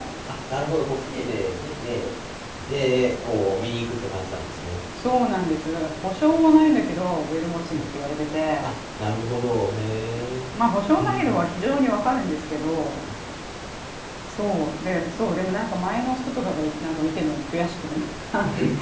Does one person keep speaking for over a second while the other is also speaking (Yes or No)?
No